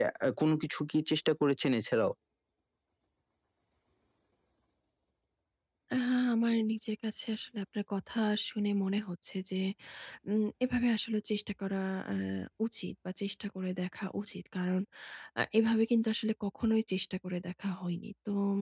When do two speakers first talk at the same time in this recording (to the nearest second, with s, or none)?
none